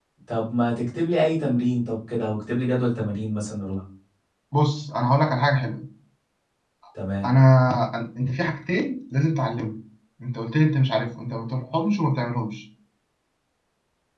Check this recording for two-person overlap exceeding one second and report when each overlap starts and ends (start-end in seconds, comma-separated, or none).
none